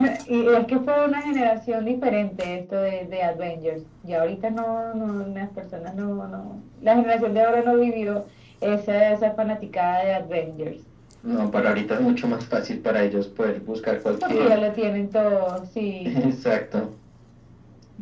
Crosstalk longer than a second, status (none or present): none